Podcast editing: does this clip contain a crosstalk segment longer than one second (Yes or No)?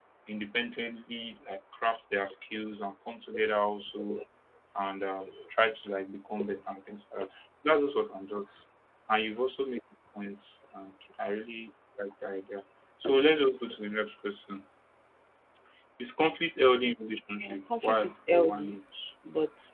Yes